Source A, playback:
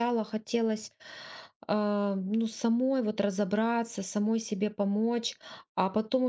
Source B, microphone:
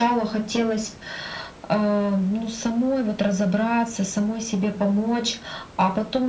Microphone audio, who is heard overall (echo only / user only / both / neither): echo only